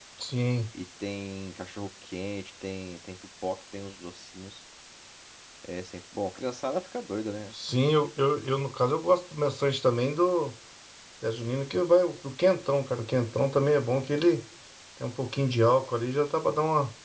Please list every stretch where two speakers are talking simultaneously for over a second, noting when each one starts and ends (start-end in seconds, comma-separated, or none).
none